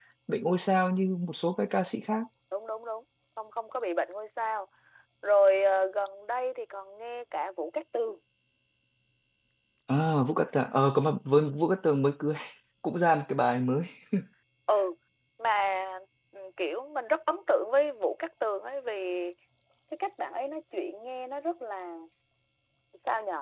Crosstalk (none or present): none